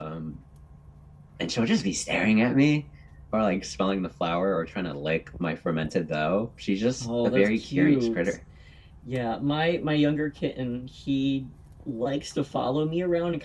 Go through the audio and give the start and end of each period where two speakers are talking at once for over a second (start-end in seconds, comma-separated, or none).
7.0-8.3